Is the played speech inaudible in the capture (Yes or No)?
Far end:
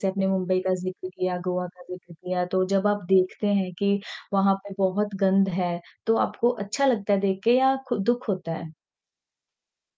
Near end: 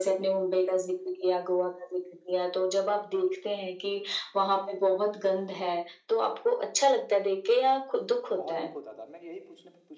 No